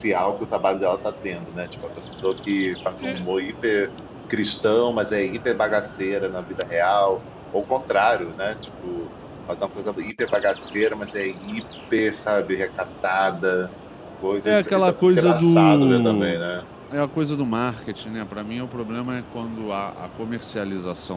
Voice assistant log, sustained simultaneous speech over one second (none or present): present